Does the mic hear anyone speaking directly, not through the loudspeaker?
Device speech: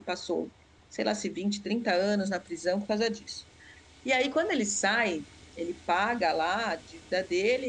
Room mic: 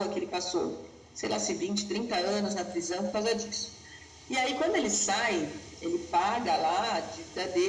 No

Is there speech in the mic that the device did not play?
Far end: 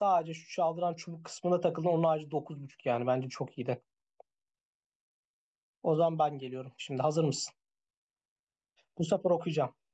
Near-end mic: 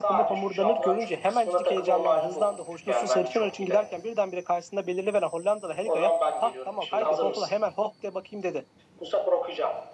Yes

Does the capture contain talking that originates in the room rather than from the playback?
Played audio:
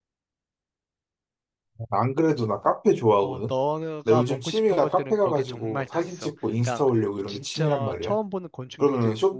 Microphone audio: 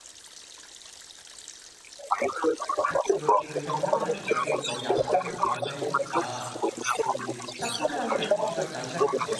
Yes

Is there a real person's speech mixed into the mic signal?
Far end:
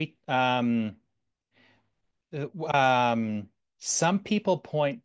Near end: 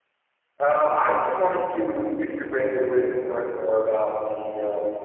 Yes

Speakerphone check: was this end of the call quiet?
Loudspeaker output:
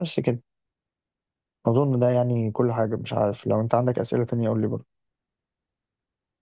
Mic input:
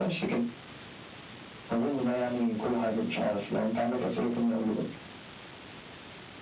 Yes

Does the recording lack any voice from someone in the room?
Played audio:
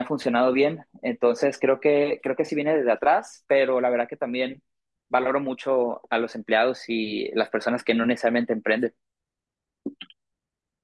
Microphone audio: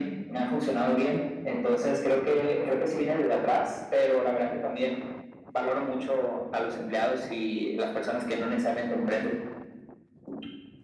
Yes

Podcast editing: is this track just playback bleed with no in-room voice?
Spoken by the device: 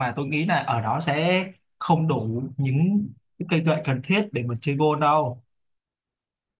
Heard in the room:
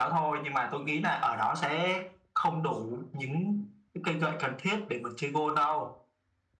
Yes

